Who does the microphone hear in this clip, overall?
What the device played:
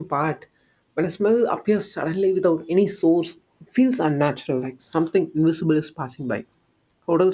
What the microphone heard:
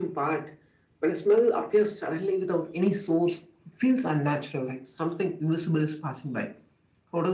echo only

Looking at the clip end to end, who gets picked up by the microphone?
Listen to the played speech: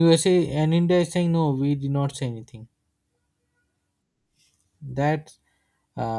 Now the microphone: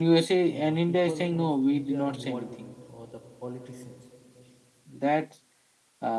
both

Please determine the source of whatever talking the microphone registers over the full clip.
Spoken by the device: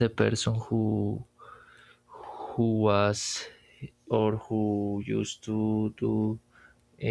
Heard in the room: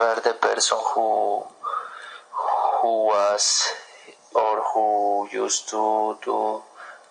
echo only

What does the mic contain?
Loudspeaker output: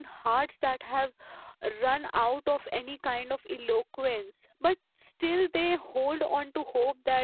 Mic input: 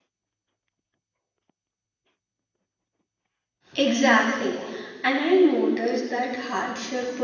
user only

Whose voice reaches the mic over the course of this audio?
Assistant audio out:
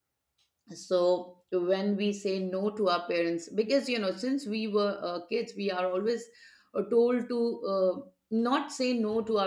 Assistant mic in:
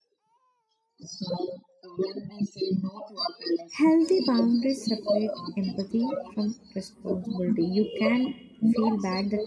both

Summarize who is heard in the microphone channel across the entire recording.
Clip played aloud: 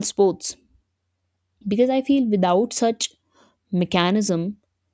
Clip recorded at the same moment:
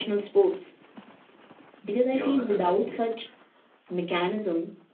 both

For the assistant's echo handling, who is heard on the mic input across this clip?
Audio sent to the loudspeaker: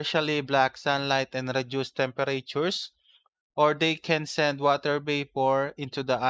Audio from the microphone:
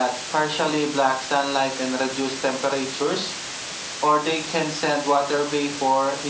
echo only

